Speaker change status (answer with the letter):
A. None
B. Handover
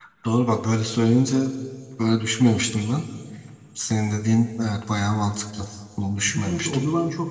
B